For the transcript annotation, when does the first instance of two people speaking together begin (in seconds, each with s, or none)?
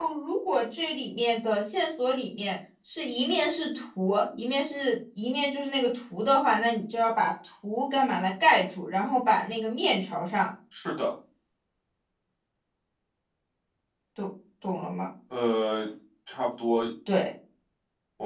none